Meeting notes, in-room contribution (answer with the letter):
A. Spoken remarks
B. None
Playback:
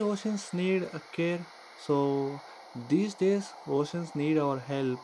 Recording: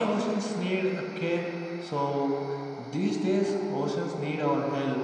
B